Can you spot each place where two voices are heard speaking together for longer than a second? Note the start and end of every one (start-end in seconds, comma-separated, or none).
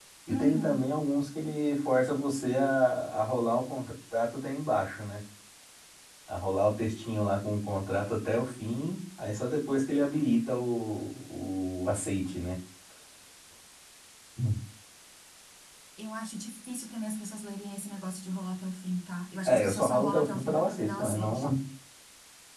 19.4-21.4